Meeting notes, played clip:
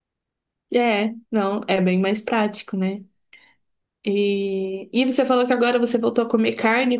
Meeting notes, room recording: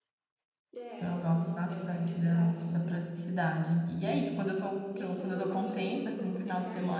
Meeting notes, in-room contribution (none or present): present